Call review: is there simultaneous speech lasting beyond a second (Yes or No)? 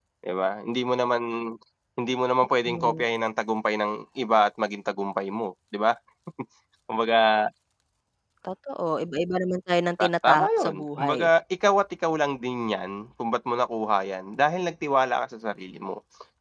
Yes